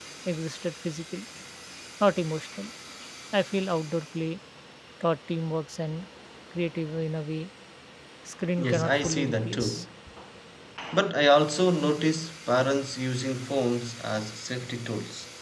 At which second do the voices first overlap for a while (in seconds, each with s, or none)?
8.6 s